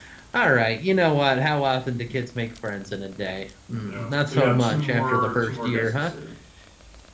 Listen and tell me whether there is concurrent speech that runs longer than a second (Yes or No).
Yes